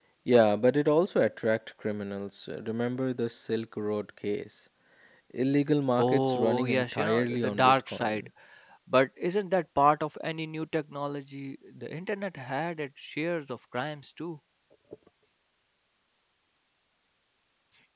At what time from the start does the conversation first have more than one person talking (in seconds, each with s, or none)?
6.0 s